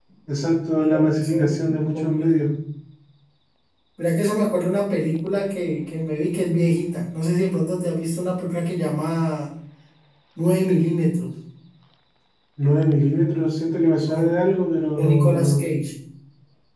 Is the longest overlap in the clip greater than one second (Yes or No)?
Yes